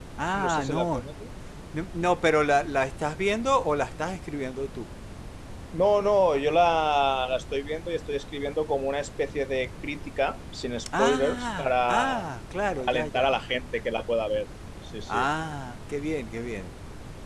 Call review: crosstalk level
present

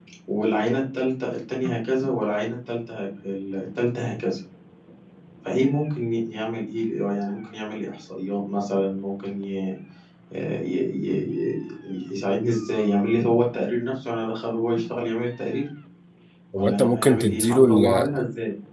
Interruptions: present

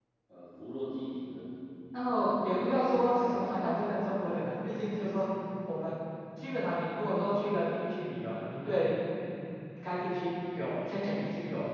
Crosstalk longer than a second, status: present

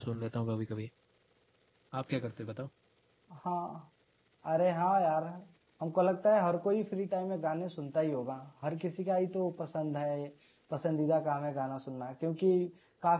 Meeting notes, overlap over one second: none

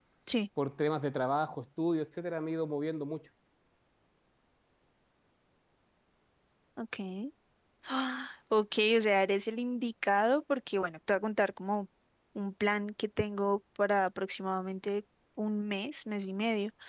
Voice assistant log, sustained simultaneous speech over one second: none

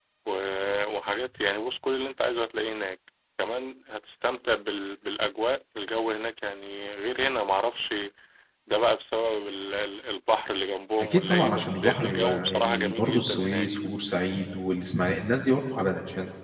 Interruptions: present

